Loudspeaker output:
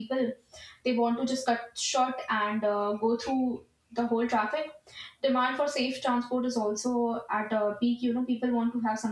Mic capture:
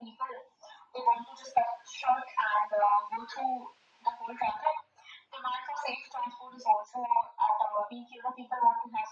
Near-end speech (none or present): none